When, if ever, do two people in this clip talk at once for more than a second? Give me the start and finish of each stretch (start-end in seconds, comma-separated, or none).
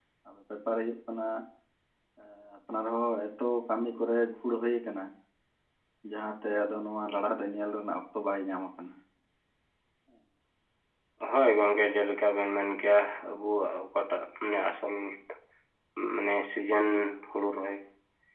none